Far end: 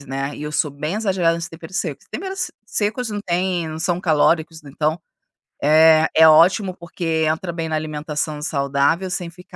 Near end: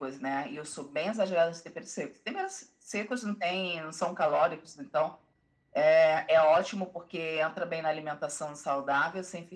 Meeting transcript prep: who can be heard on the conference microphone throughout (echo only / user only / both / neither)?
echo only